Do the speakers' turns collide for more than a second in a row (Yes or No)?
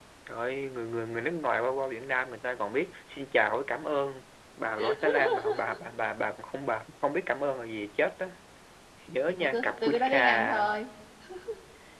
Yes